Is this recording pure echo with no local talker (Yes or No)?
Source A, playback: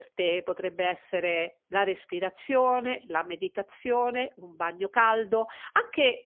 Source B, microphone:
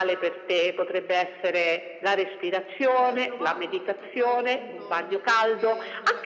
No